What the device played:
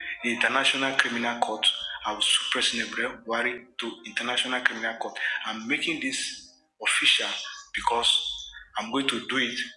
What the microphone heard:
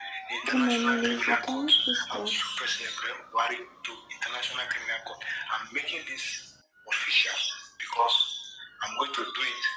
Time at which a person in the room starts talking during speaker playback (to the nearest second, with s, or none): 0 s